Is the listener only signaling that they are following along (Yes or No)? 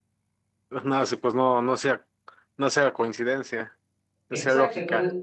No